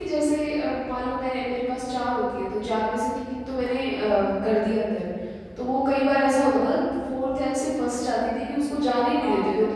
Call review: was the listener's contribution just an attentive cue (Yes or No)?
No